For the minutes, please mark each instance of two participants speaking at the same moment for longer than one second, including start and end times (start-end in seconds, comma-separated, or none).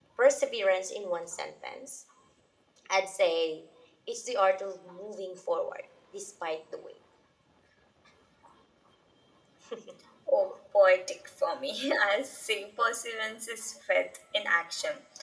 none